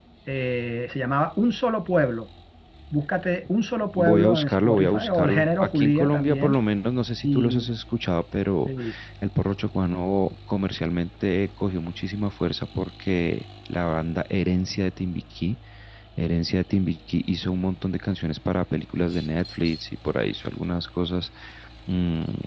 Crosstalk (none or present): present